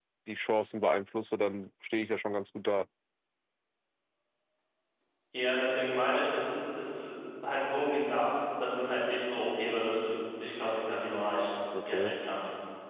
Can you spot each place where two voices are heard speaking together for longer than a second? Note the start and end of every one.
none

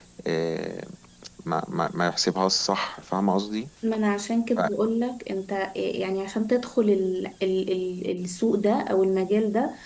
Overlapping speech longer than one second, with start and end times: none

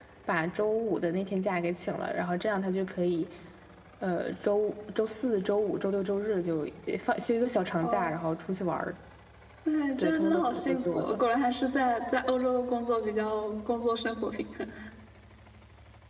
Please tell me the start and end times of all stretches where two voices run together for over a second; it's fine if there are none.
10.0-11.2

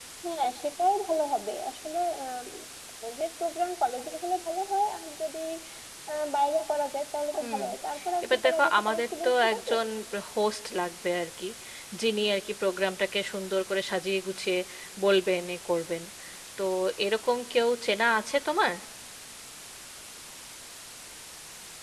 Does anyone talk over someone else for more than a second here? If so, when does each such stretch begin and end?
8.2-9.7

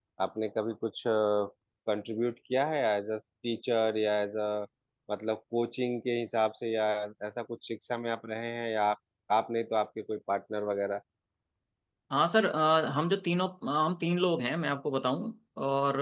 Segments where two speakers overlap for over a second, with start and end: none

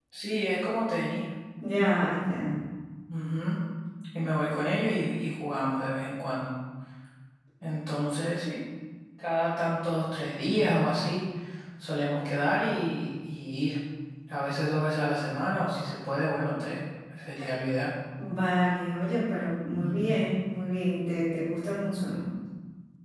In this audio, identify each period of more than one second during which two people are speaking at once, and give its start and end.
none

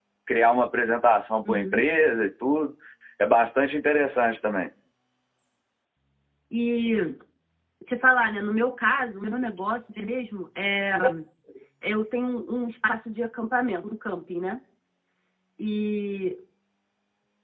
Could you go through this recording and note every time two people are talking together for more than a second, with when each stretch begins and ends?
none

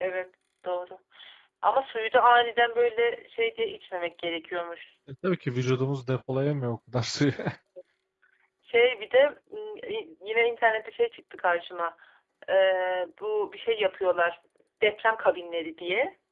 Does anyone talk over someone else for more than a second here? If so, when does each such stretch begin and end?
none

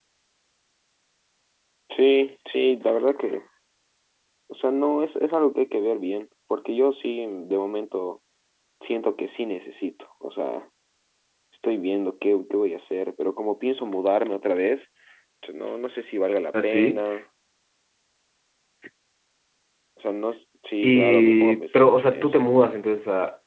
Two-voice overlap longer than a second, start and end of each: 20.8-22.4

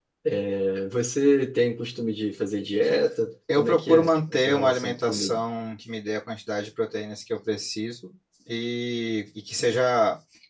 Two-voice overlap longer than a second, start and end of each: 3.5-5.4

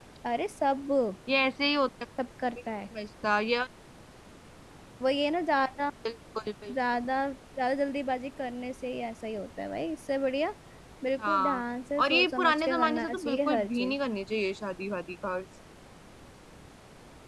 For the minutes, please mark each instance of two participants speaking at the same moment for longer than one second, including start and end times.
12.0-13.9

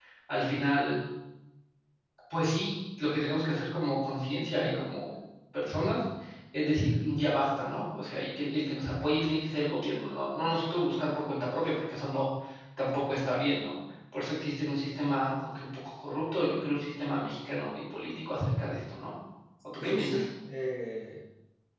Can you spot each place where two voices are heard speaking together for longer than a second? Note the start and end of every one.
none

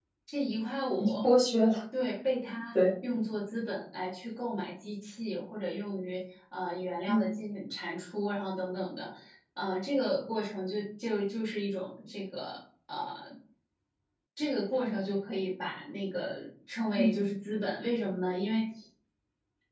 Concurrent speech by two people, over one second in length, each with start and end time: none

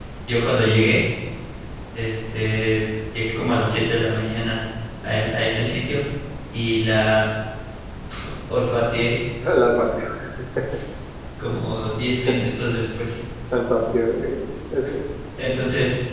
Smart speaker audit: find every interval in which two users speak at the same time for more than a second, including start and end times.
none

